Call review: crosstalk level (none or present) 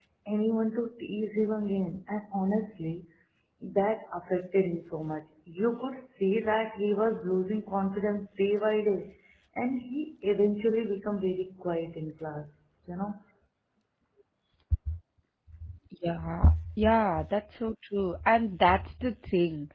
none